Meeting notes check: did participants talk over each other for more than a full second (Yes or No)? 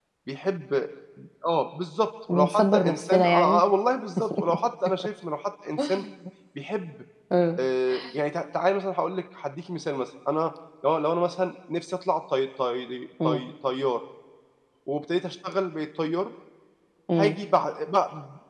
Yes